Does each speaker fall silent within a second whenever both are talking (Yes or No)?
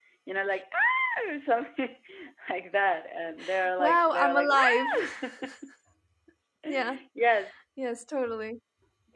No